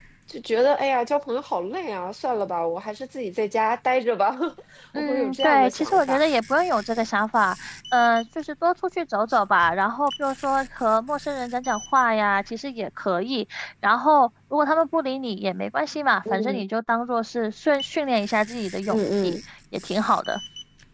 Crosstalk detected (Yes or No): Yes